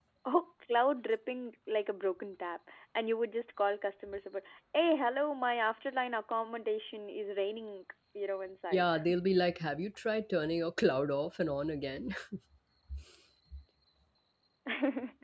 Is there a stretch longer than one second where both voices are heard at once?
No

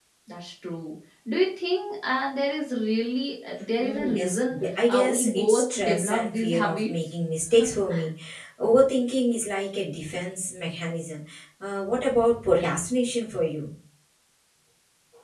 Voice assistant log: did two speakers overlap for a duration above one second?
Yes, from 3.8 s

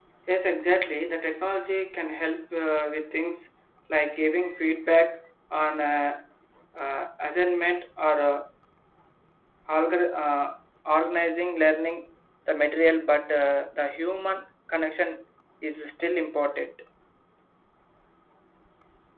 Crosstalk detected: No

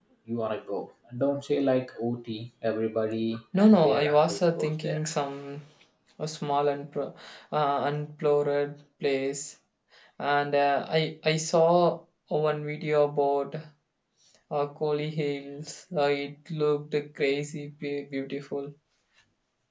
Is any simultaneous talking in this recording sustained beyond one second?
Yes, from 3.5 s

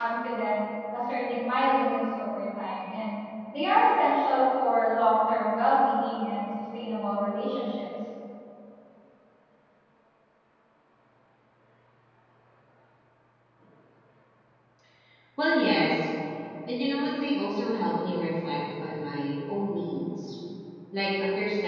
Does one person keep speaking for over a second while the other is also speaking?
No

